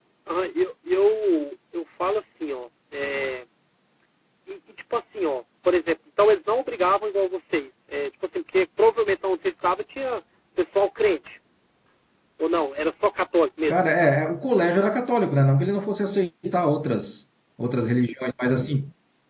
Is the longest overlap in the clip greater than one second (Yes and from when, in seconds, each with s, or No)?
No